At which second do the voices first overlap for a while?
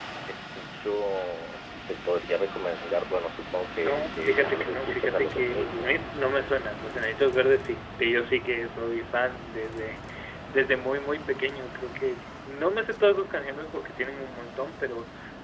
4 s

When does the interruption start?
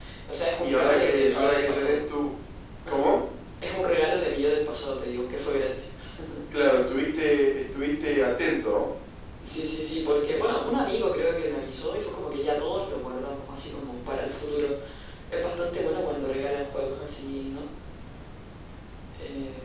1 s

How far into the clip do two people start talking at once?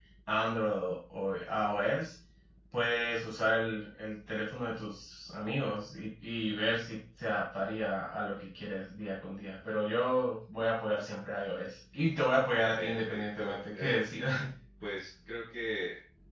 13 s

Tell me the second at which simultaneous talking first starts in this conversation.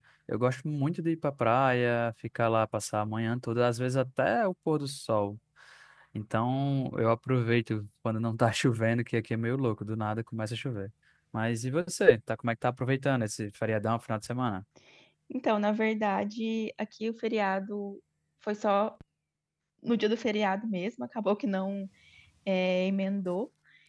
none

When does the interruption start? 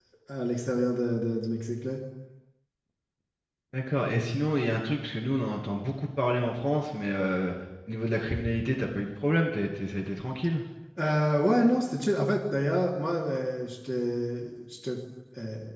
none

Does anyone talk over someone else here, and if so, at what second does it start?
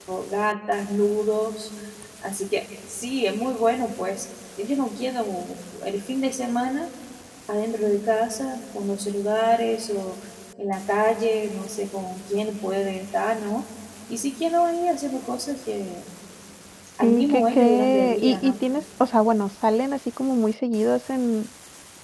17 s

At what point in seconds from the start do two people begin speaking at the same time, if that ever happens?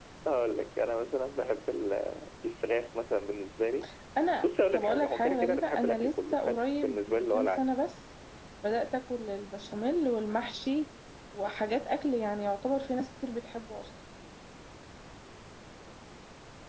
4 s

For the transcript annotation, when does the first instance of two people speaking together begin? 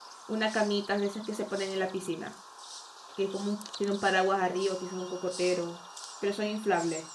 none

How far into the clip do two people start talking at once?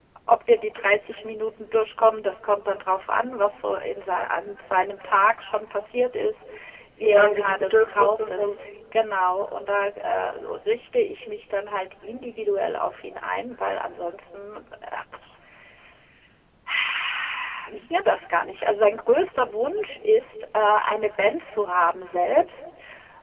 7 s

